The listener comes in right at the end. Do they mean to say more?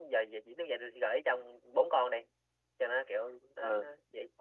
Yes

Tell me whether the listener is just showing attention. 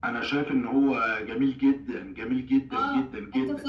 No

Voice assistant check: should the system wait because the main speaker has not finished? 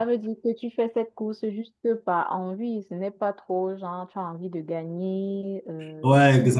Yes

